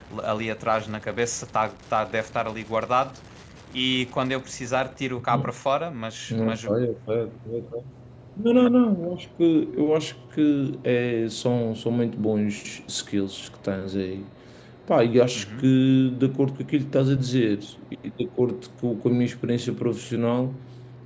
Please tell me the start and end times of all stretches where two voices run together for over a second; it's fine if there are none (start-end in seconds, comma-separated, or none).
none